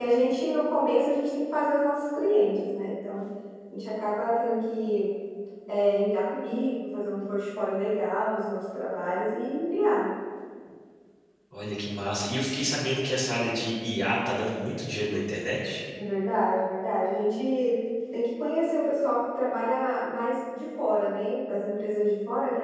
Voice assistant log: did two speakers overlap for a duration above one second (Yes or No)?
No